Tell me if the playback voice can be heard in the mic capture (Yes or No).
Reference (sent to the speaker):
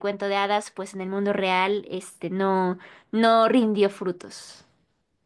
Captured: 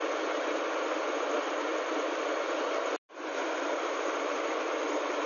No